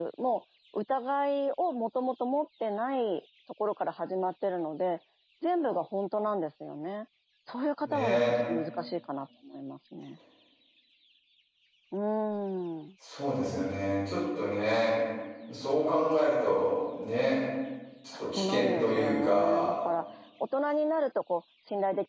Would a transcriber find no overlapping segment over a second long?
No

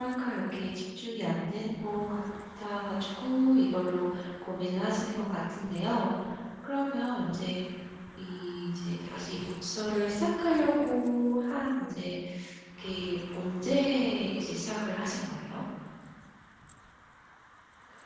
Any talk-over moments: No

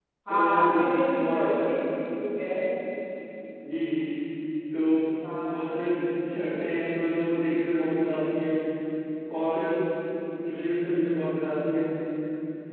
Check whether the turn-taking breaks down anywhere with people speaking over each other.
Yes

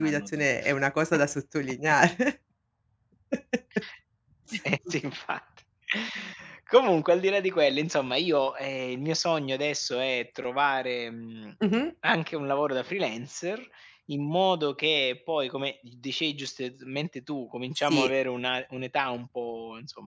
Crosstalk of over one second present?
No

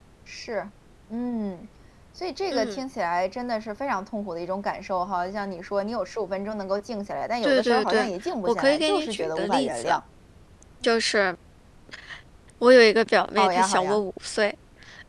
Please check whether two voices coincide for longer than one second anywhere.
Yes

